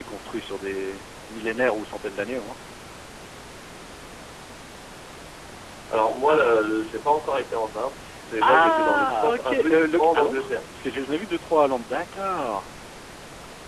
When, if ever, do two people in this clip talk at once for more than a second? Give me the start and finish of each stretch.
8.4-10.5

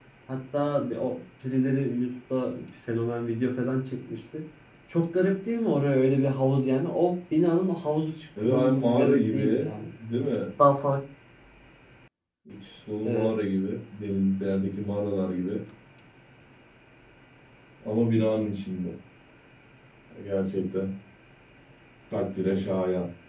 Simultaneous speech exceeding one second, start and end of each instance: 8.4-9.7

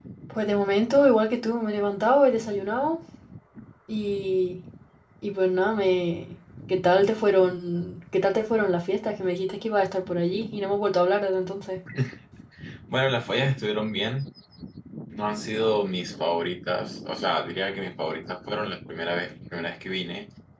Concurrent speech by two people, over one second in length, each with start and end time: none

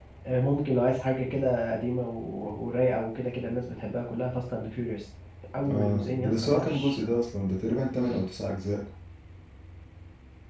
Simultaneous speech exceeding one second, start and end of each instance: 5.7-6.9

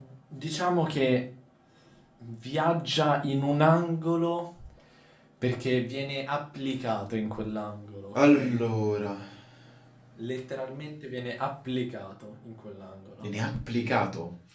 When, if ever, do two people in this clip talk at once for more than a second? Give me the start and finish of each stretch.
none

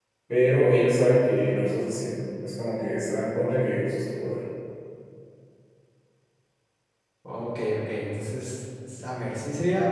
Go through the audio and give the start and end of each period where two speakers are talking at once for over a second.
none

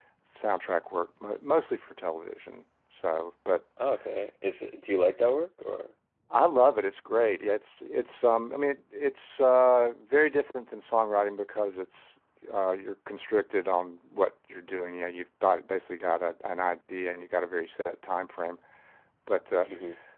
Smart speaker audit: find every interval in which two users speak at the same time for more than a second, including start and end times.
none

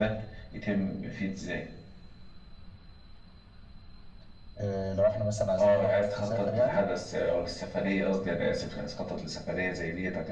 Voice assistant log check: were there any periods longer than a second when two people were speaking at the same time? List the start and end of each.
5.6-6.8

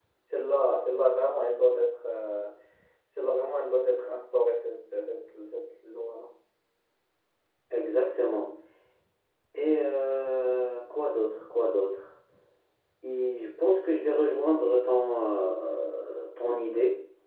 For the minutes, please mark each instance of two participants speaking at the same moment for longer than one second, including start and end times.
none

